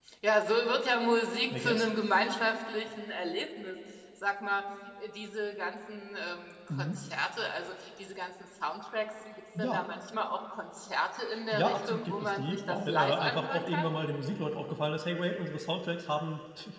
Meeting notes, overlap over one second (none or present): present